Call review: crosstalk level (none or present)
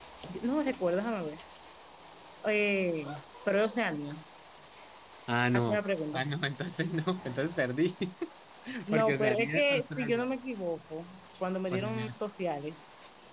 present